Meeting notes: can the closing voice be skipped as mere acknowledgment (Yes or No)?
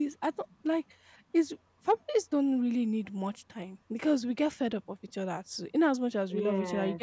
Yes